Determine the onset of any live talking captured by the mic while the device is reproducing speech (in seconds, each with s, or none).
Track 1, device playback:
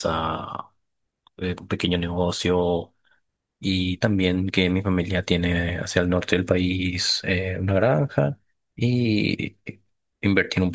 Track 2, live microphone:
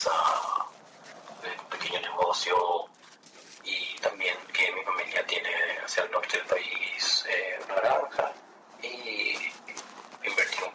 none